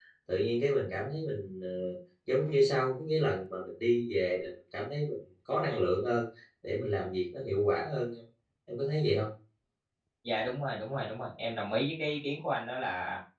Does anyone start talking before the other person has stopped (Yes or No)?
No